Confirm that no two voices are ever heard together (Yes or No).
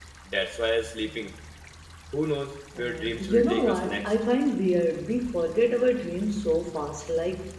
No